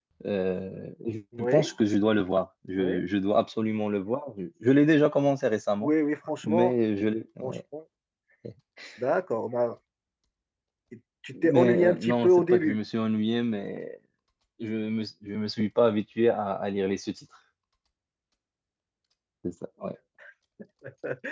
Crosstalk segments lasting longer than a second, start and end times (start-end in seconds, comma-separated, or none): 11.4-12.8